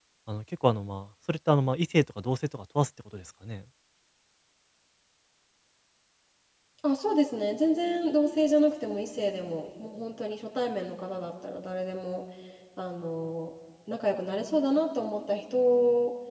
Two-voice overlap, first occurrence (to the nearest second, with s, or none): none